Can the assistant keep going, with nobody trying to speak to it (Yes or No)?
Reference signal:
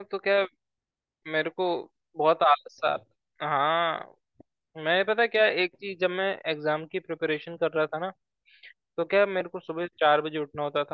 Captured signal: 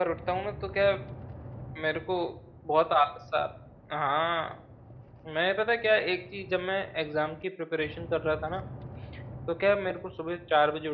Yes